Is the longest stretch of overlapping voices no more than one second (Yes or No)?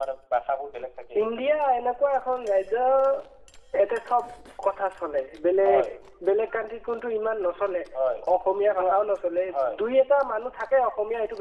Yes